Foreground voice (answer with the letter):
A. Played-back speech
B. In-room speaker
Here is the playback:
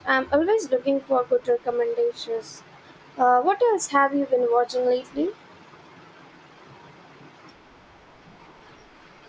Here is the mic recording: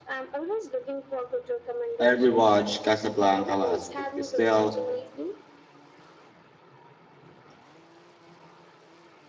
B